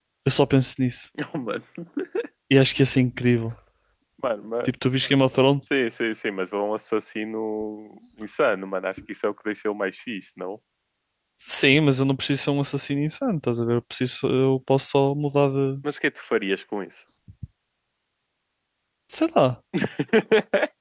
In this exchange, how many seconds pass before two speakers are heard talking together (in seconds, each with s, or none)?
none